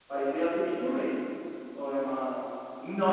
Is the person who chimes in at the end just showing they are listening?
No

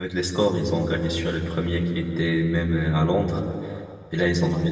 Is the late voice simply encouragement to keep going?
Yes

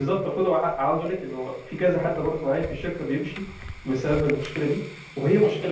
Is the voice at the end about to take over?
Yes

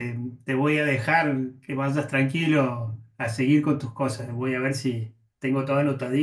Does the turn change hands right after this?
No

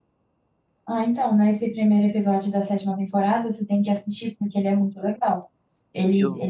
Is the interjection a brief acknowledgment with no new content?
Yes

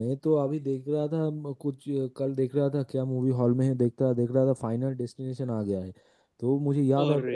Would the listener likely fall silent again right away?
Yes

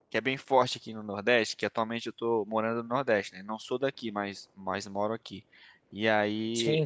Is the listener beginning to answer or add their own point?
No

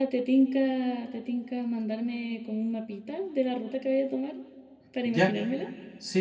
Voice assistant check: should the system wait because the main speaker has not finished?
No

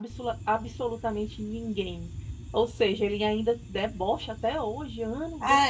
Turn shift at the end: Yes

